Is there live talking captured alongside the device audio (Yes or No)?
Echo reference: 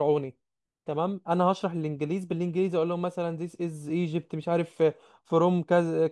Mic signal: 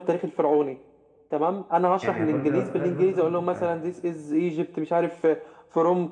Yes